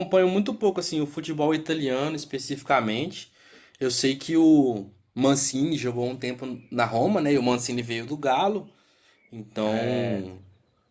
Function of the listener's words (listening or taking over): listening